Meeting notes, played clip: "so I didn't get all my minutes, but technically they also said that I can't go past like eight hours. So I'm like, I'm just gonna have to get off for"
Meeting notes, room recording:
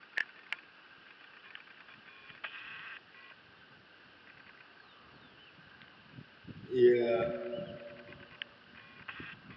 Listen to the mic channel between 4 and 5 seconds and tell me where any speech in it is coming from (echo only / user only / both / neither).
neither